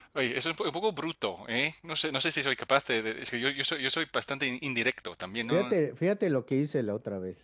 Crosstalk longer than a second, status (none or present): none